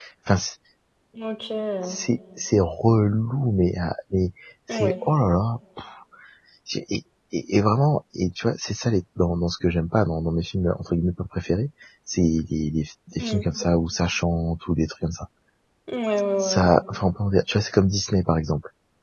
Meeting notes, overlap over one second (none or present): none